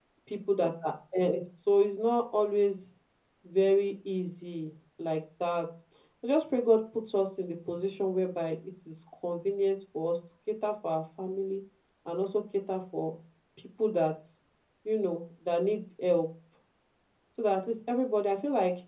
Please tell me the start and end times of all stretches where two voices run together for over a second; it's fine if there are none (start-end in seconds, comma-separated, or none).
none